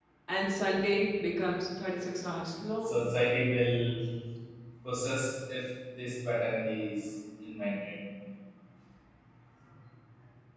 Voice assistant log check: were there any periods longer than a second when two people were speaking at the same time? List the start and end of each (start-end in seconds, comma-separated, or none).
none